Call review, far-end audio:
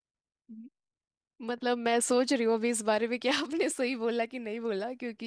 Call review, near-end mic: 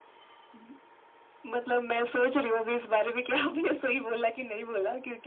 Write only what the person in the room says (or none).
none